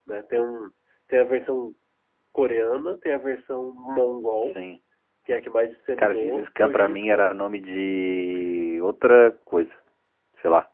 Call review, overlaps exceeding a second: present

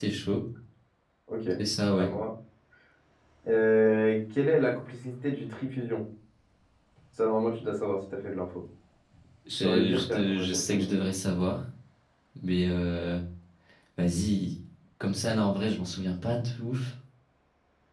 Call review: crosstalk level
present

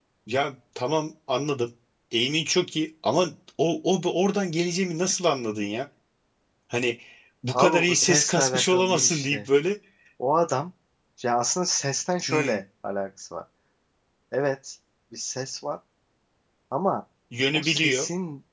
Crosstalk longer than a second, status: present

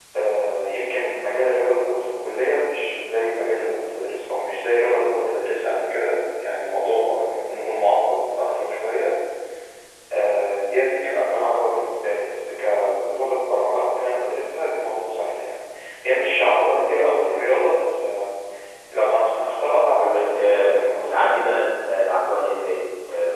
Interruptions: present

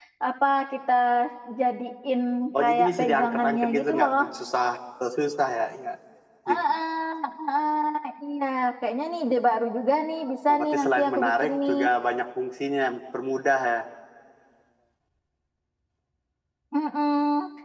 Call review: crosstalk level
present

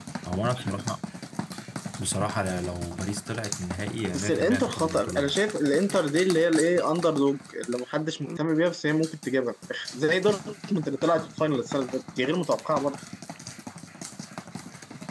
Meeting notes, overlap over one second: present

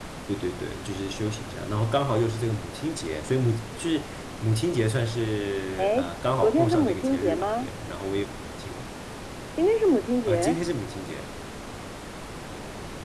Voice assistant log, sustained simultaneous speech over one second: present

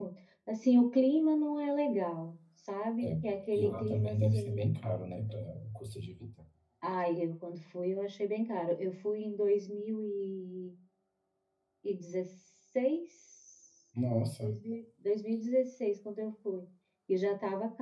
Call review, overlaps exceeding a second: present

